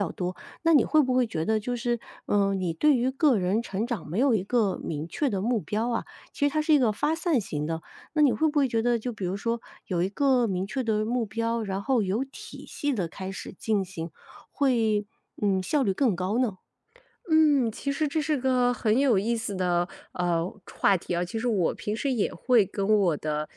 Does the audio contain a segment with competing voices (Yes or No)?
No